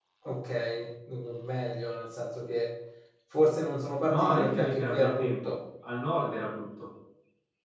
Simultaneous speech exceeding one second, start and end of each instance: 4.1-5.5

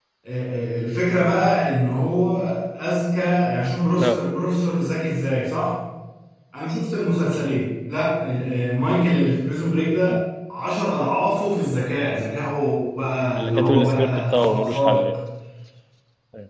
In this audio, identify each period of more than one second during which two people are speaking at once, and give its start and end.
13.4-15.1

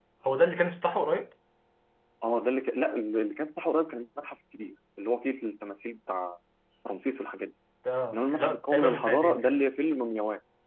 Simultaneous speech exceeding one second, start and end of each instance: 8.1-9.6

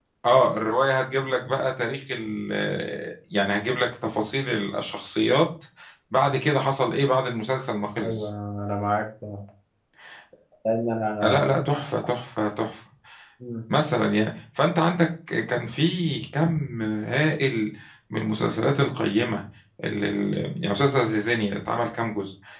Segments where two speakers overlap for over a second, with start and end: none

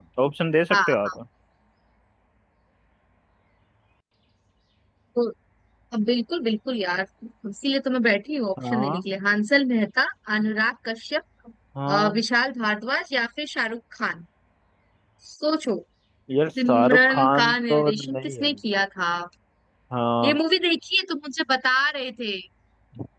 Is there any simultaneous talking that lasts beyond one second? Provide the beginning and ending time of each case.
16.7-18.5

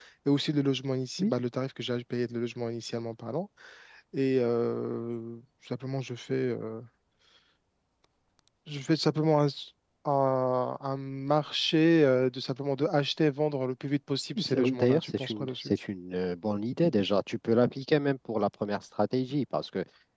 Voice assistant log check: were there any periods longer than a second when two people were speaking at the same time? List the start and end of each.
14.4-15.7

